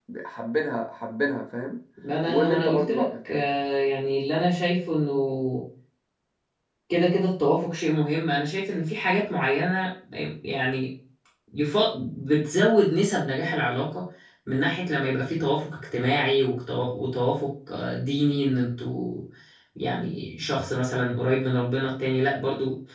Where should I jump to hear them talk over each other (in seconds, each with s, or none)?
2.2 s